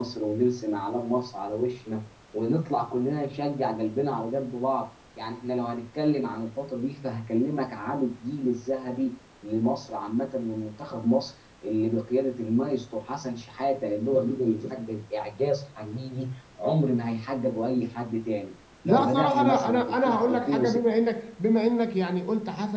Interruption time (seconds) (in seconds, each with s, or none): 18.9 s